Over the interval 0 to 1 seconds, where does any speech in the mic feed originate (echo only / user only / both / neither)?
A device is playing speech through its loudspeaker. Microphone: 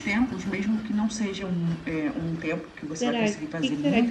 echo only